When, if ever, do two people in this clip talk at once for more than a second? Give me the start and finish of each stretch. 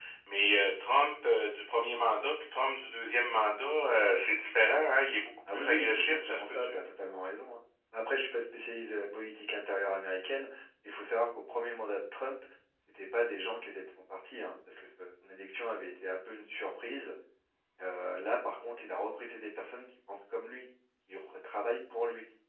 5.5-6.7

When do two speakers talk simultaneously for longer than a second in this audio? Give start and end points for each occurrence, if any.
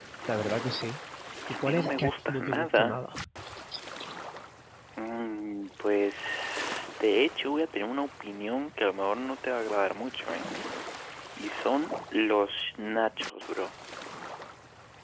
1.5-3.0

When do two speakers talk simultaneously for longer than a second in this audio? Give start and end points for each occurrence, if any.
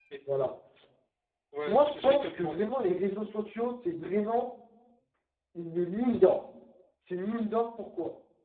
1.7-3.0

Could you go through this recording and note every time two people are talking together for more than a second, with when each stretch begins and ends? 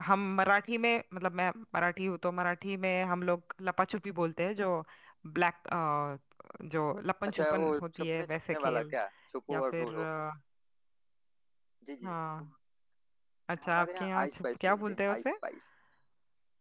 7.3-8.9, 13.8-15.3

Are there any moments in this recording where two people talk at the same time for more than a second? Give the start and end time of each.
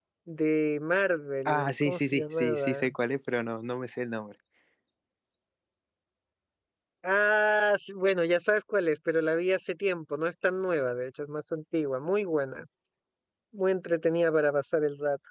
1.4-2.9

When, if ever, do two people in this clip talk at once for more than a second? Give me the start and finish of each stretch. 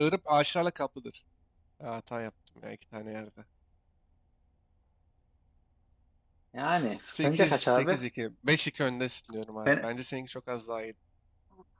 6.7-8.0

